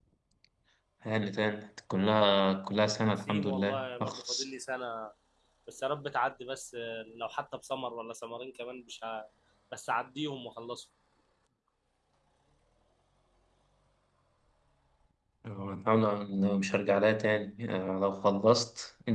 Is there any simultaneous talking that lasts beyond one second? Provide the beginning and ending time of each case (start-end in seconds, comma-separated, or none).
3.2-4.5